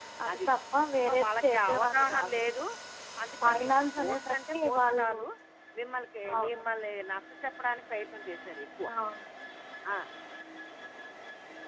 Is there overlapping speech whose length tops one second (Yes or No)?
Yes